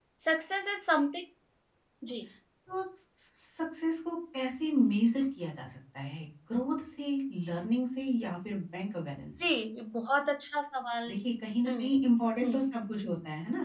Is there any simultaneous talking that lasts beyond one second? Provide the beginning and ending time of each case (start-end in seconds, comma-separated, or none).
none